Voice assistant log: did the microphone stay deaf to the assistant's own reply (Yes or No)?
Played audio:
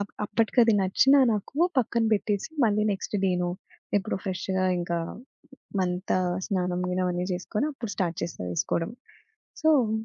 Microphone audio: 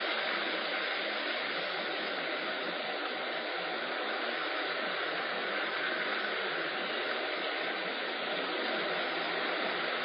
Yes